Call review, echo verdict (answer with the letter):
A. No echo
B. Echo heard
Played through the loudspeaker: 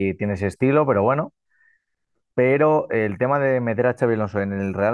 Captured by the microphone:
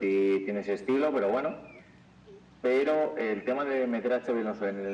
B